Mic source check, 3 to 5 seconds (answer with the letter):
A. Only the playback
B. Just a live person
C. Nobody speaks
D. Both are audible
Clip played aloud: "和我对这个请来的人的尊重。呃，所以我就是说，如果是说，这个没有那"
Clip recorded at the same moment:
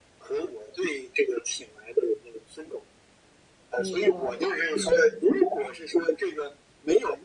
D